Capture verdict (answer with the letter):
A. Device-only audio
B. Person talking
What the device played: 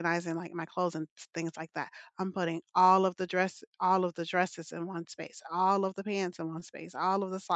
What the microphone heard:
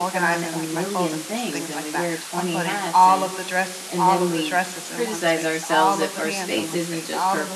B